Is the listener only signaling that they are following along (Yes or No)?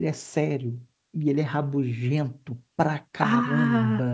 Yes